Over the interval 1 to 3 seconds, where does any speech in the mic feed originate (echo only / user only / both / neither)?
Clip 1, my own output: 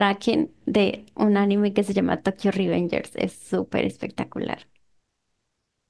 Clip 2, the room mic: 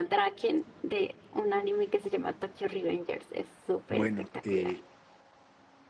echo only